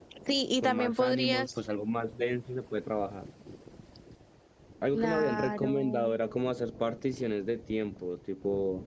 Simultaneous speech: Yes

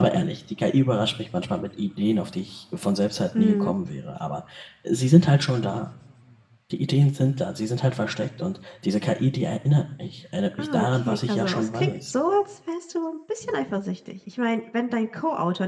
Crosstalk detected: Yes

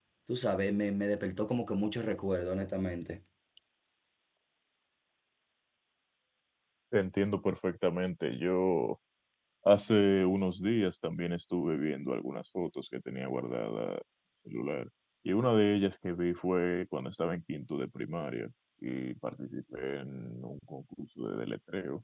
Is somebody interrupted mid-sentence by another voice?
No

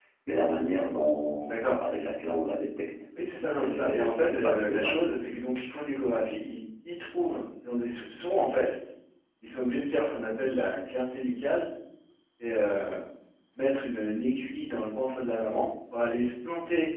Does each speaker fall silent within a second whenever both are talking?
No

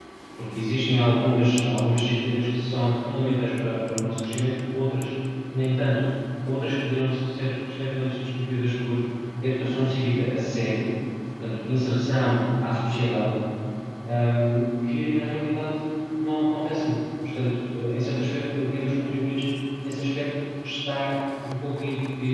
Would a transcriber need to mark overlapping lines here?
No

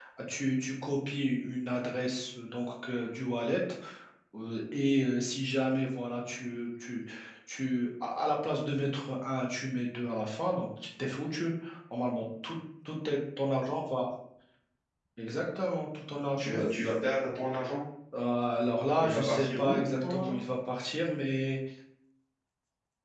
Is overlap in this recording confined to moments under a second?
No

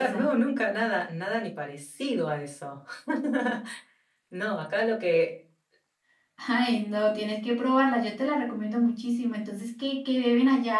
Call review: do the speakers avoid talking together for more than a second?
Yes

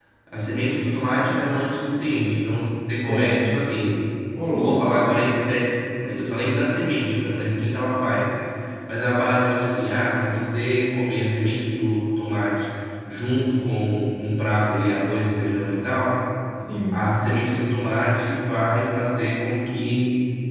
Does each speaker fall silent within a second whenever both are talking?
Yes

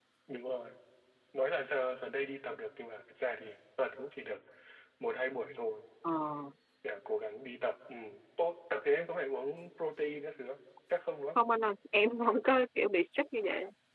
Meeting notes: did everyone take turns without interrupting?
Yes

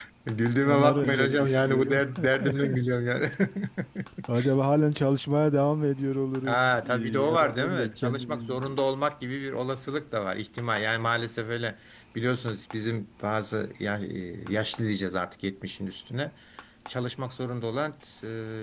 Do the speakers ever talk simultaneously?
Yes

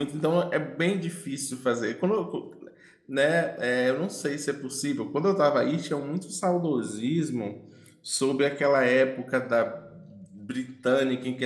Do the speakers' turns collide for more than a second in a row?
No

